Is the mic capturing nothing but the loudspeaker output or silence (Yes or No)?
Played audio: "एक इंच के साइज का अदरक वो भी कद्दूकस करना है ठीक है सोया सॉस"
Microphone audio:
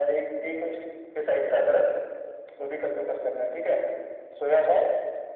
Yes